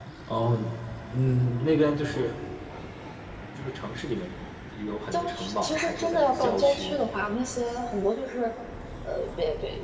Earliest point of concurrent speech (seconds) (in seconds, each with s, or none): 5.1 s